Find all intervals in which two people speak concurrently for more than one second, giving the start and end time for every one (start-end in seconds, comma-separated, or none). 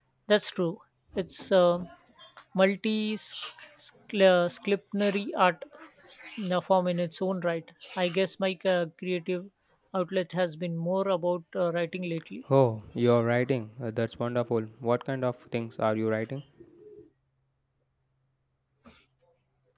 none